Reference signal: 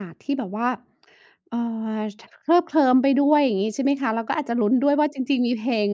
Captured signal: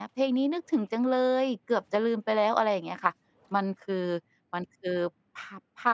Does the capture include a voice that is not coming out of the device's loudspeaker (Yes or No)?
Yes